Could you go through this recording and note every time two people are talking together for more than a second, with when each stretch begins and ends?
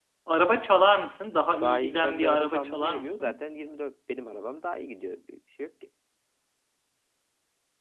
1.6-3.4

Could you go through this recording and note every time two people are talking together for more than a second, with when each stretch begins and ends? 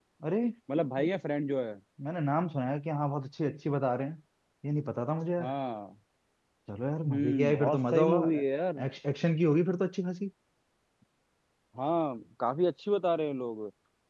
7.1-8.4

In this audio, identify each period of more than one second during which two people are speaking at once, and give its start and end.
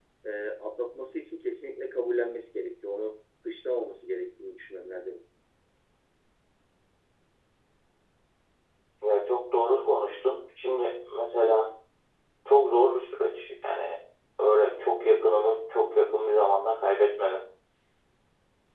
none

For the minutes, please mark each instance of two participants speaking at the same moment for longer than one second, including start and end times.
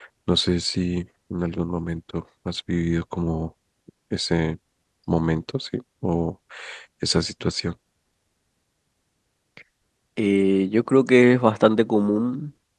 none

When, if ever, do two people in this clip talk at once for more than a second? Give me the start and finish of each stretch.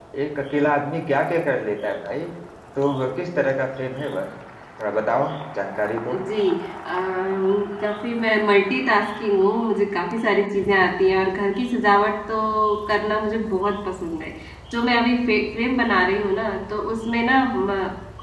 none

